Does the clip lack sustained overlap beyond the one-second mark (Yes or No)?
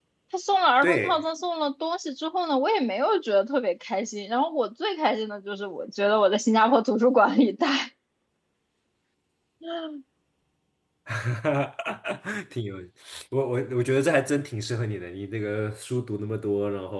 Yes